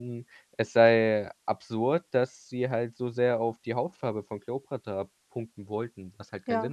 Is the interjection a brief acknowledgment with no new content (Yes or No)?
No